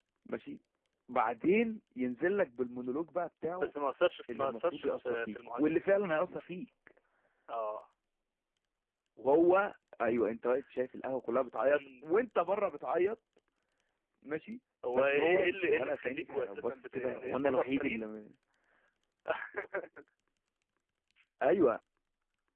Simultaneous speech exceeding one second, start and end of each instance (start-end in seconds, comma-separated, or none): 4.3-6.0, 14.9-18.1